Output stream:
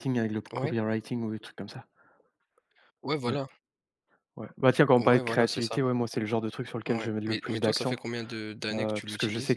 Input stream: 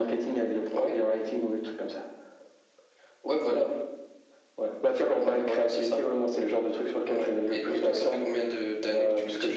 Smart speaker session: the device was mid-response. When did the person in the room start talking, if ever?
none

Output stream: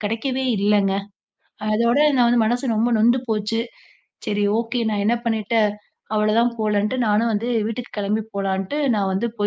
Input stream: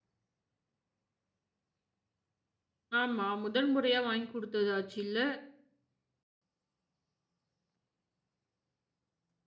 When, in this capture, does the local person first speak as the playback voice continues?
3.0 s

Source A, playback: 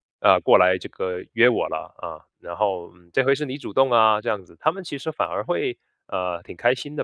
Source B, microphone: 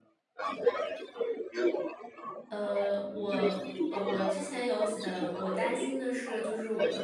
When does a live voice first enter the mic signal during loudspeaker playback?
2.5 s

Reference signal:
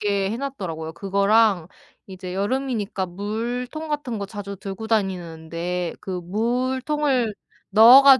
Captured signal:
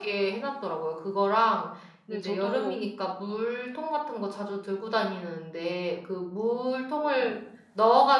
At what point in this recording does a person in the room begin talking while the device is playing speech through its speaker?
2.0 s

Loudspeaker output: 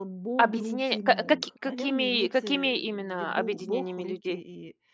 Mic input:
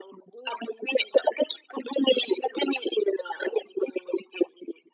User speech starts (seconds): none

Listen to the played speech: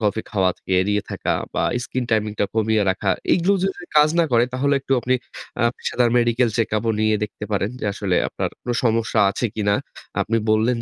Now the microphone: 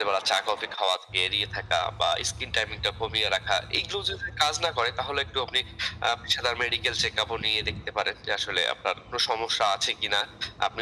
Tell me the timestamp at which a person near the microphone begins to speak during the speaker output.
none

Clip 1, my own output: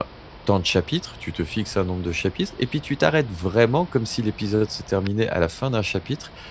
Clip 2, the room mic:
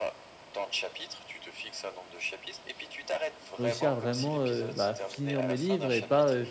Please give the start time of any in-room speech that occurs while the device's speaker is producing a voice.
3.6 s

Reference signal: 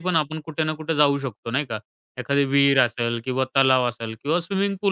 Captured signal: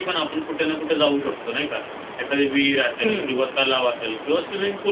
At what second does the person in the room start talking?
3.0 s

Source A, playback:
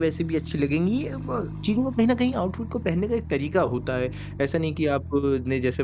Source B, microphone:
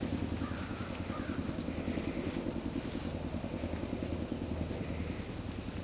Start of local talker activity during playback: none

